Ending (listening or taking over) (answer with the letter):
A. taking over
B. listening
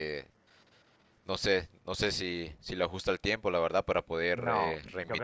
A